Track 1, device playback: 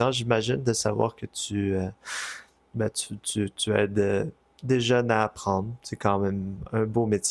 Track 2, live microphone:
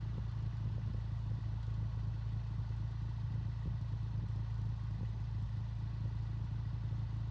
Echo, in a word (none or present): none